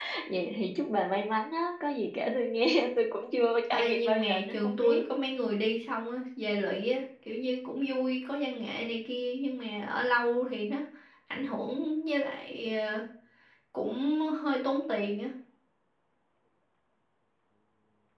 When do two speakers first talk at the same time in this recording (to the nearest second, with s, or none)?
4 s